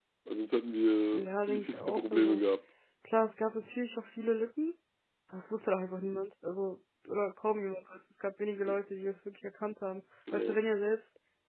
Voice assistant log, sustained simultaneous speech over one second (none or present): present